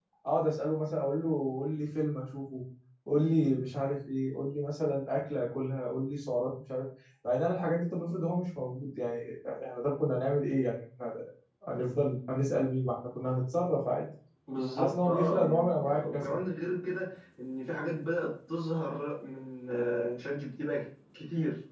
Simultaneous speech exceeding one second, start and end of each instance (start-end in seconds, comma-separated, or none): 14.8-16.2